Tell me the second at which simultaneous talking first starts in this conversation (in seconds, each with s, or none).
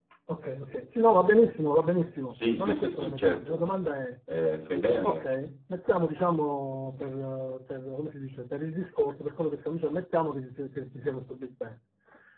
2.2 s